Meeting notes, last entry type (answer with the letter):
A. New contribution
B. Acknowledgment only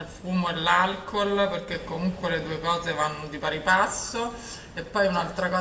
B